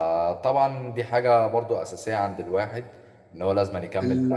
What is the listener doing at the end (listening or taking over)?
taking over